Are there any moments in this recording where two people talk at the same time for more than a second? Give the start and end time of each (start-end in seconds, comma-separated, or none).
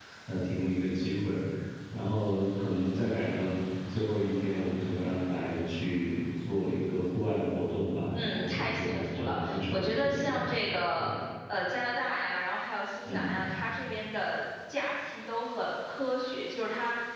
8.1-10.4